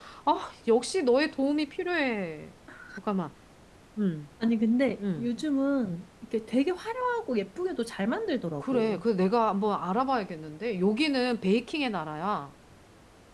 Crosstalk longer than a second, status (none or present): none